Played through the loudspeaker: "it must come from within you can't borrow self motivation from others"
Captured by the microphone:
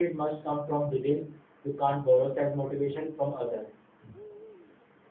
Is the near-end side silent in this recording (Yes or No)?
Yes